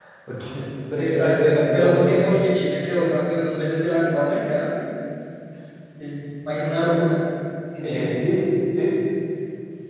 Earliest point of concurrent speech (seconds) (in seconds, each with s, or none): 1.0 s